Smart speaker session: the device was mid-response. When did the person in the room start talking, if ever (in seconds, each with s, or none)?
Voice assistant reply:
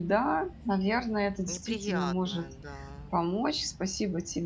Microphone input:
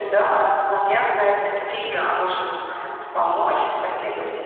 none